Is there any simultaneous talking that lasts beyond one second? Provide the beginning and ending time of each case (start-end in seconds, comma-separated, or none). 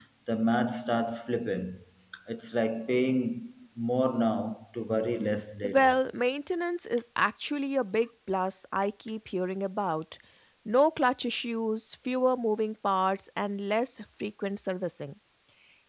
none